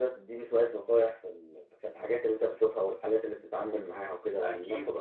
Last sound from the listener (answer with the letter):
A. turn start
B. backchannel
A